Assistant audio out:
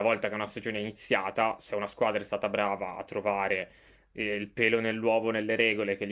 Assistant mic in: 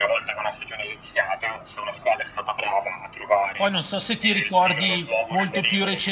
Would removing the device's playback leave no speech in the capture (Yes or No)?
No